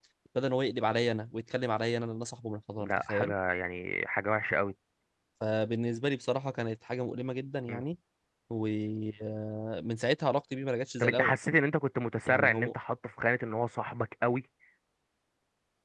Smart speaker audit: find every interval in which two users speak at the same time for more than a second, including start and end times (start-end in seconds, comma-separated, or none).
none